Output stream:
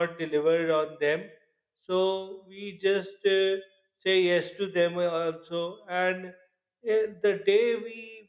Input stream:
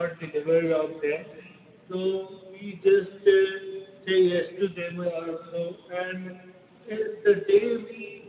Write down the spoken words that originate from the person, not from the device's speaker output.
none

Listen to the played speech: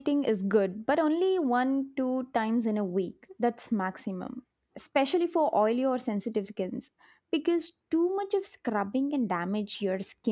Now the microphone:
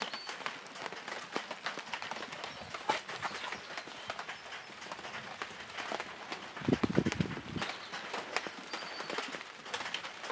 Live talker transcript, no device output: none

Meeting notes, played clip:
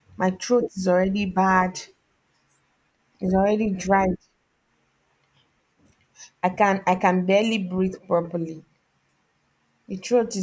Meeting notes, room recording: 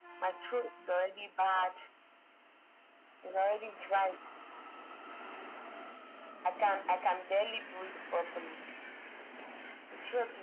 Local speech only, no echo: none

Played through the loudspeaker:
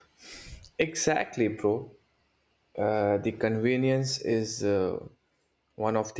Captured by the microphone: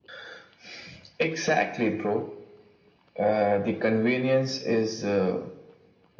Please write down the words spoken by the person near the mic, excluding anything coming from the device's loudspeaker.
none

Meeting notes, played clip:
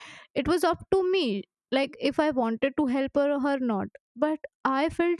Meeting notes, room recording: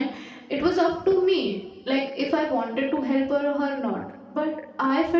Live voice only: none

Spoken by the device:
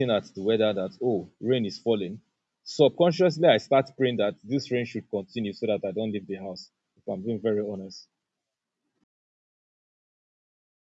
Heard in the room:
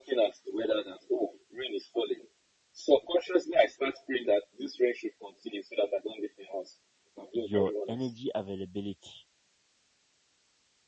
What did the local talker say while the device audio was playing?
your energy availability

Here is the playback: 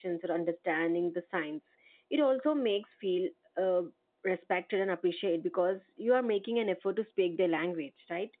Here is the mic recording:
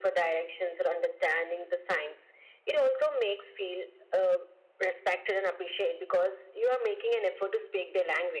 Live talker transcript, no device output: none

